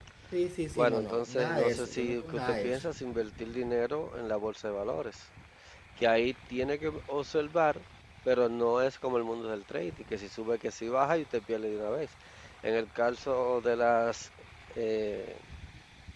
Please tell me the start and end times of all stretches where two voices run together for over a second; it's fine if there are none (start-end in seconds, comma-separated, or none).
0.8-2.8